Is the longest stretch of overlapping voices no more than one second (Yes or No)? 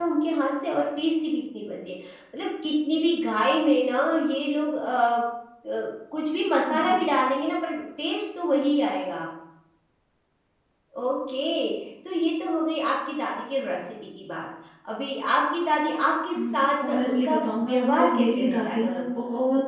No